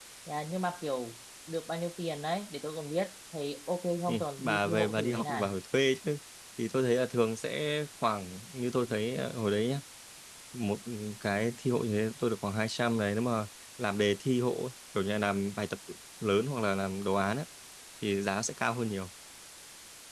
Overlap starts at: 4.1 s

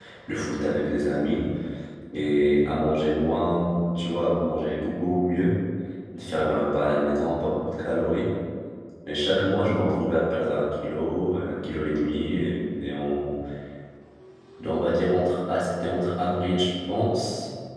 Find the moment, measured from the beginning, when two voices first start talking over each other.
none

